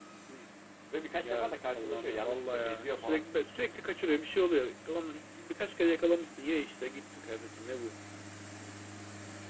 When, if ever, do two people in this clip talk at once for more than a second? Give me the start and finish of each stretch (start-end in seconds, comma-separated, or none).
1.2-3.3